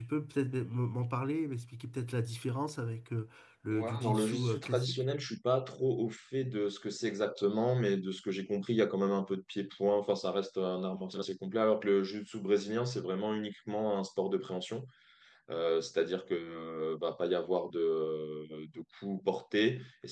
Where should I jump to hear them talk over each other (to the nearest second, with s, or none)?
4 s